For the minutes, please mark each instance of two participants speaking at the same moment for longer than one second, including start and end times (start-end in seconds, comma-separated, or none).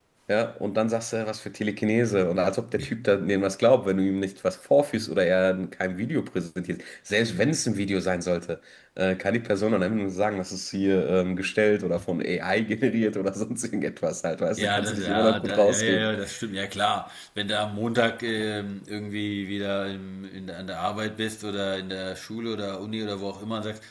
14.6-16.1